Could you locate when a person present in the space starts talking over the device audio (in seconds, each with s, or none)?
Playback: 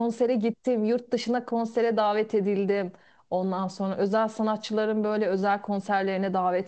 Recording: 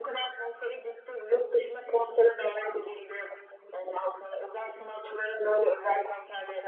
none